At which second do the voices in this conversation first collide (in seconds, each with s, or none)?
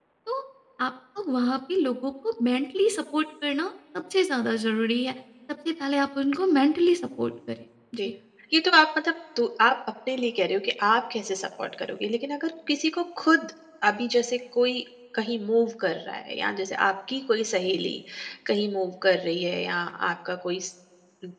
none